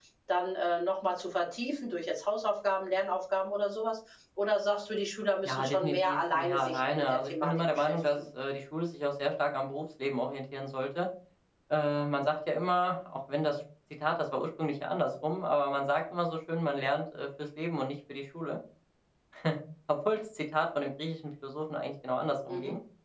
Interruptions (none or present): present